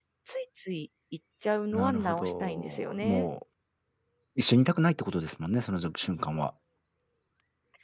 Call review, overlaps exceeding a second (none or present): present